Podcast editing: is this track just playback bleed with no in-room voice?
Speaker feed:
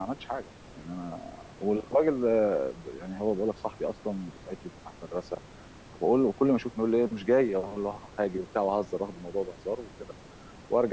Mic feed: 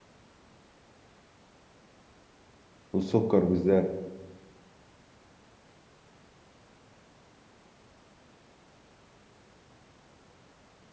No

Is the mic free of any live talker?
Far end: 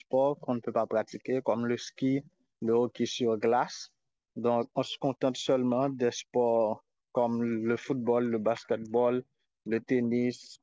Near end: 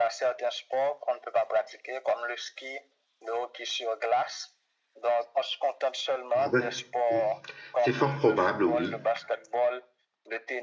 No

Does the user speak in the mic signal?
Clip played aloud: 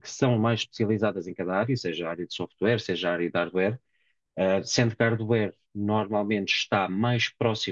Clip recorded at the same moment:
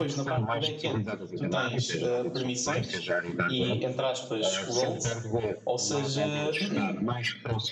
Yes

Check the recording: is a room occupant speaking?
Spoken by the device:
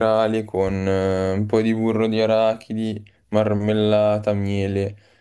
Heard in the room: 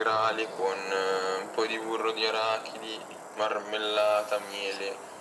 No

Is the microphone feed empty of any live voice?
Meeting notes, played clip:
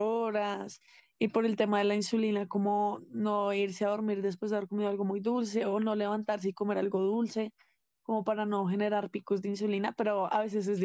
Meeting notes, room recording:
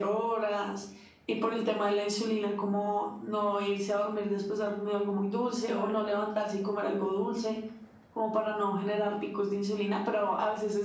No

